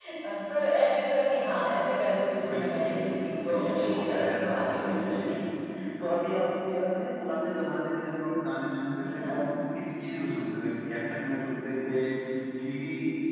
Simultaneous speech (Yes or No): Yes